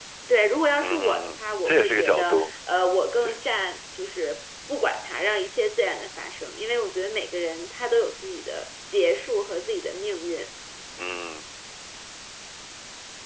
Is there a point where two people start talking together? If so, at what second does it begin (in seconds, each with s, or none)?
0.8 s